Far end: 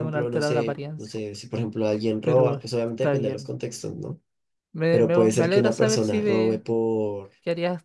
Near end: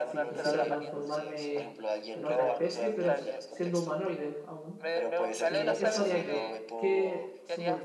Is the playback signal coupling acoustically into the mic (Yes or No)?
Yes